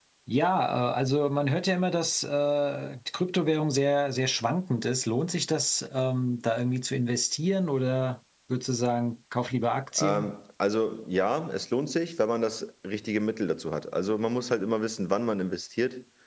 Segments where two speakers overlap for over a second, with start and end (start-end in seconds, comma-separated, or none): none